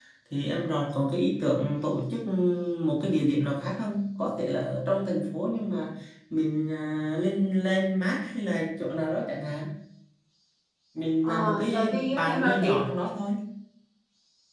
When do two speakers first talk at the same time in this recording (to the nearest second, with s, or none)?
11 s